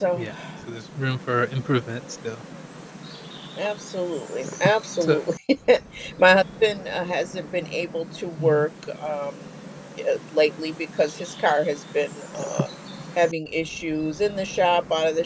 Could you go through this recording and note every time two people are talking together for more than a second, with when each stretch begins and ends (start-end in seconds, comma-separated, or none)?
none